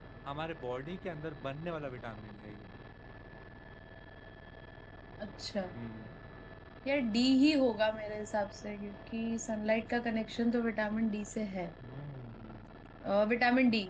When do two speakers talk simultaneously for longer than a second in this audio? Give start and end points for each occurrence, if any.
none

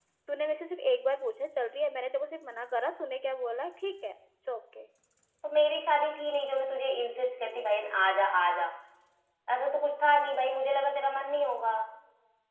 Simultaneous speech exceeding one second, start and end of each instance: none

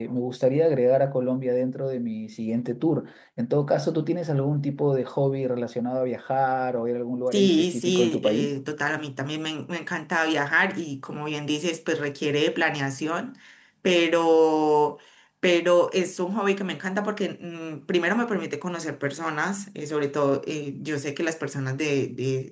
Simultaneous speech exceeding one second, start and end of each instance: 7.3-8.5

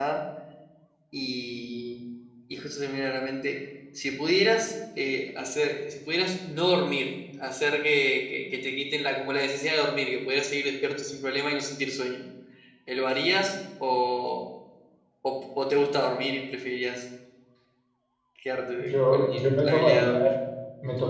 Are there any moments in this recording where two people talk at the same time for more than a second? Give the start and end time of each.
18.8-20.2

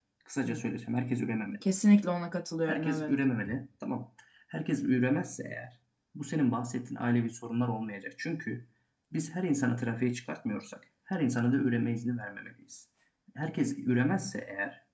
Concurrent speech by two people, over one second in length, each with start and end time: none

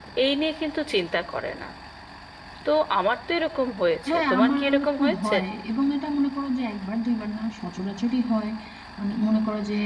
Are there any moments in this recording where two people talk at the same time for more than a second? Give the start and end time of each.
4.1-5.3

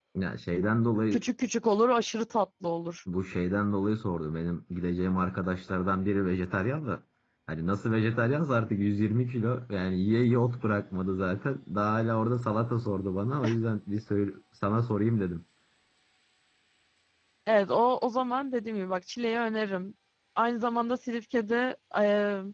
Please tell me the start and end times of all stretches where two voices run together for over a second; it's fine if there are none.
none

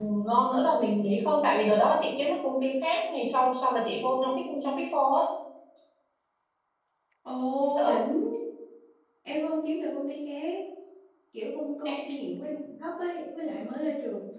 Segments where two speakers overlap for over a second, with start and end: none

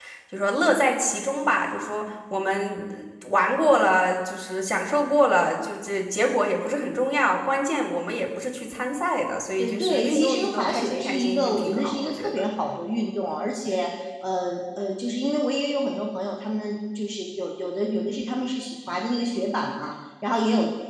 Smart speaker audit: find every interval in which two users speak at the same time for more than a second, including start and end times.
9.6-12.4

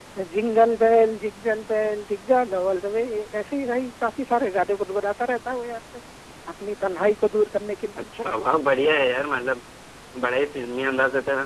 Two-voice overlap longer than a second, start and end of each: none

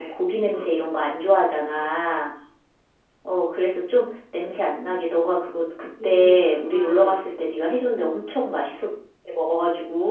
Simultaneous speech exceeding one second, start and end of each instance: 6.0-7.3

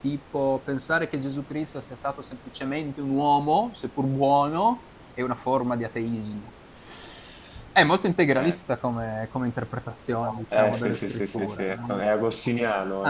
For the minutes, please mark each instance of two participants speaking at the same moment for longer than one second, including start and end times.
10.5-12.0

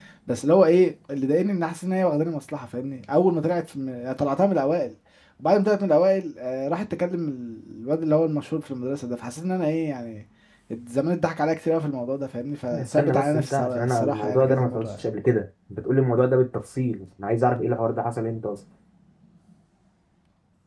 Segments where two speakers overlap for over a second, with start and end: 12.7-15.0

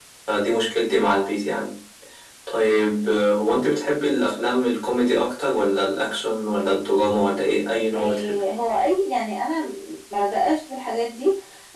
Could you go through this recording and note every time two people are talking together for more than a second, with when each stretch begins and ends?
none

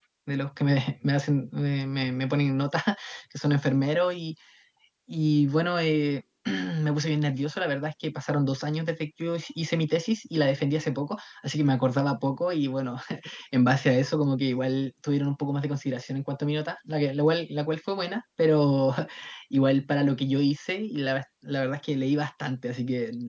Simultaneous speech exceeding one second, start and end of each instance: none

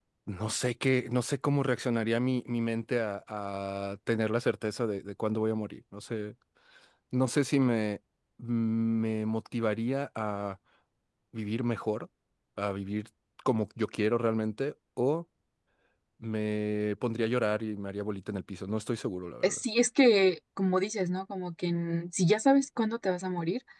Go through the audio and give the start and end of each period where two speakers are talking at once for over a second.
none

